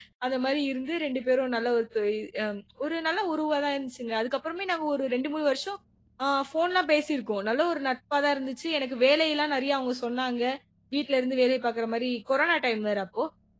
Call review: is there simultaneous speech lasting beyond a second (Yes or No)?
No